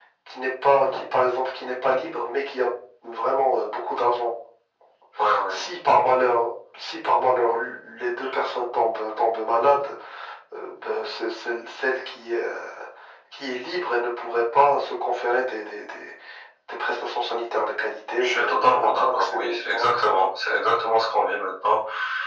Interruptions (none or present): present